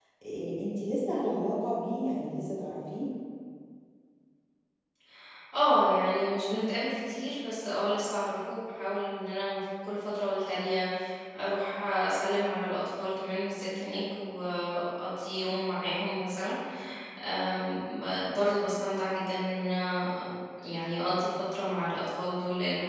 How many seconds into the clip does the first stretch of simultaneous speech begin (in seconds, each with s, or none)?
none